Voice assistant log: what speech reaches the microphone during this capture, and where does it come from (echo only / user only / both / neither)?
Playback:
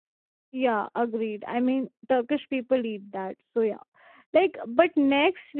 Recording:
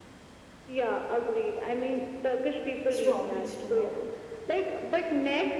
both